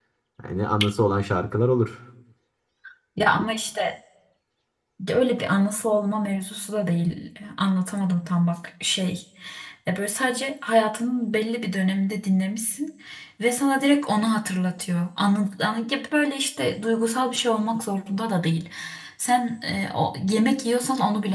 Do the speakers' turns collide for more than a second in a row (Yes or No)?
No